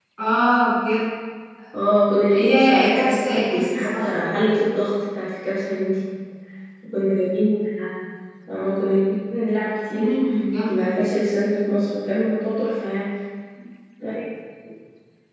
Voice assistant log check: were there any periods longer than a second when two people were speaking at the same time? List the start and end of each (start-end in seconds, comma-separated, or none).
2.3-4.3